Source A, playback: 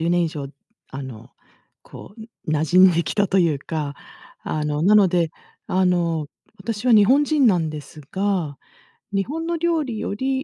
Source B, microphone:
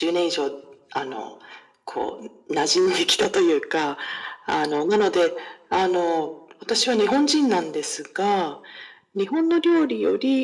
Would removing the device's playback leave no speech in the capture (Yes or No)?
Yes